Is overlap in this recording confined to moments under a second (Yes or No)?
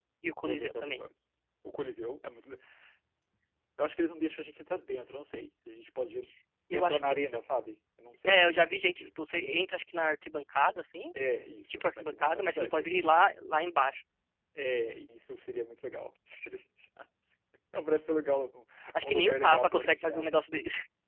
No